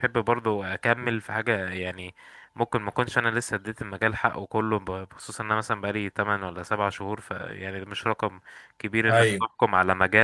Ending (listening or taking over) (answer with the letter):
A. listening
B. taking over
A